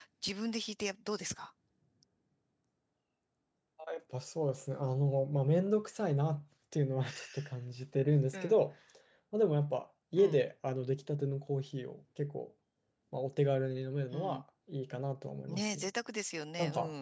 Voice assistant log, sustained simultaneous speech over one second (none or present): none